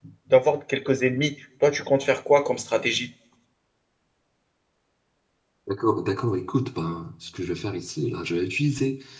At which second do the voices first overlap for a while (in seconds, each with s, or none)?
none